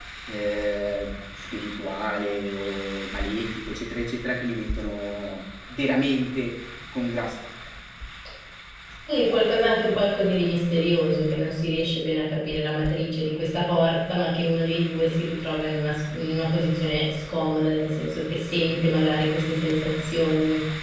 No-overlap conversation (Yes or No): Yes